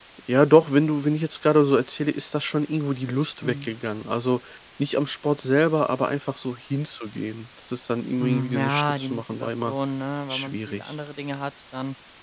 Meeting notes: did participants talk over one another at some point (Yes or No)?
Yes